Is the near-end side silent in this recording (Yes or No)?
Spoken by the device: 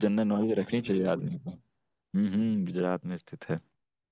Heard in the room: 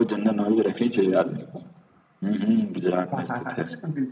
No